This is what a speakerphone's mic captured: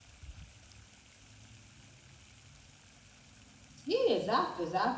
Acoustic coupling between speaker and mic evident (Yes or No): No